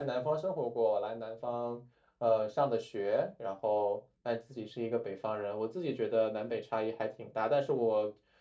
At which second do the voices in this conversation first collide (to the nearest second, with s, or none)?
none